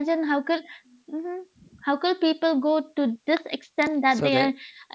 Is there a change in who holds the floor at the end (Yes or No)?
No